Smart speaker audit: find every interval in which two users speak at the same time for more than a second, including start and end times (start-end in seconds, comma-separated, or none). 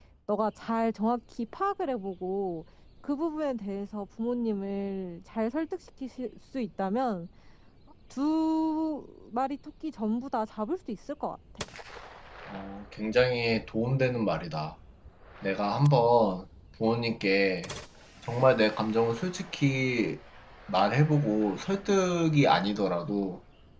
none